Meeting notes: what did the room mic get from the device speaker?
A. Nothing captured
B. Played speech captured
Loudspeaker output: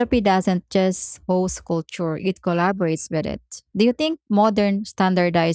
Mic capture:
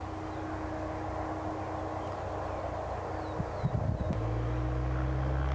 A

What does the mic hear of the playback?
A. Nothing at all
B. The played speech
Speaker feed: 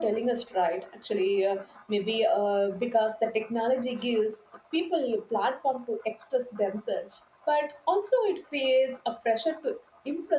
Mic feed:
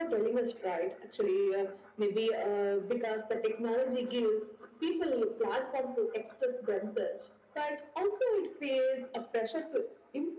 B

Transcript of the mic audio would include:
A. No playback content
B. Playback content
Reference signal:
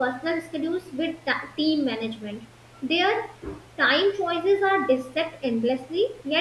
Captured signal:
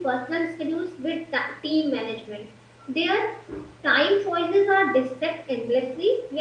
B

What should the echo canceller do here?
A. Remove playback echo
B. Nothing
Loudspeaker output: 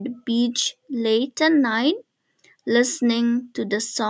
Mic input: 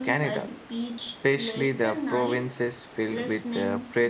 A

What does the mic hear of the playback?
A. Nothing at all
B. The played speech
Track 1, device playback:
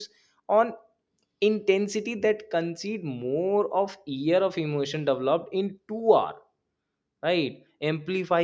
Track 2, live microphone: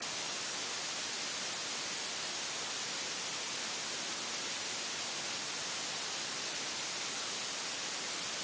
A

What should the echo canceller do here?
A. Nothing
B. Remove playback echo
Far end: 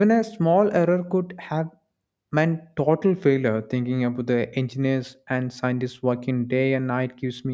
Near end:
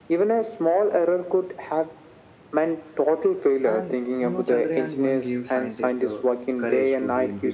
B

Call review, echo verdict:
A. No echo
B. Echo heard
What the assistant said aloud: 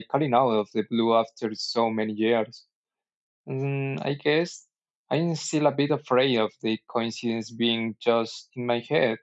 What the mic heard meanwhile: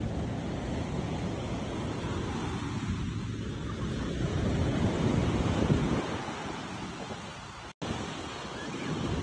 A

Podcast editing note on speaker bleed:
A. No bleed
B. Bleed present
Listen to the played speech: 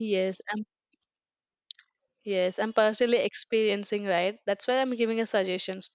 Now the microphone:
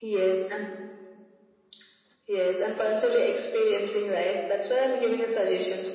B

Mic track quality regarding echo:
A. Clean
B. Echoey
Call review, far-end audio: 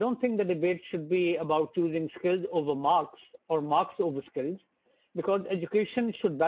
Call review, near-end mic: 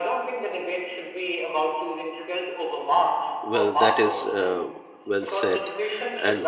B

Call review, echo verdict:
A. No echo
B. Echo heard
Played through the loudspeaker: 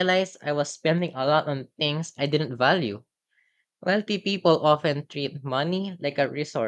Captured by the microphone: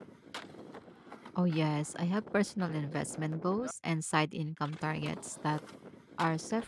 A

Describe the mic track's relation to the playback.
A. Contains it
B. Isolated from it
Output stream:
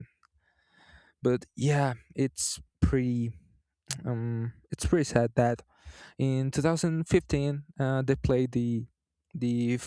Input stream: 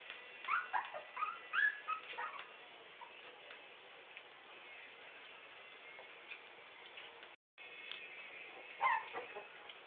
B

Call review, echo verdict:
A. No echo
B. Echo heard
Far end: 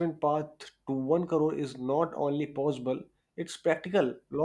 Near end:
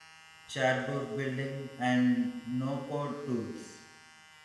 A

